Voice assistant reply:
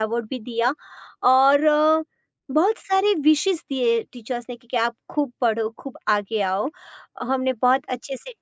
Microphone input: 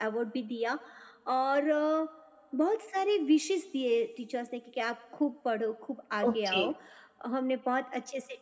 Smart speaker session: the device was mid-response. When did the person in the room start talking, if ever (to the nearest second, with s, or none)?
6 s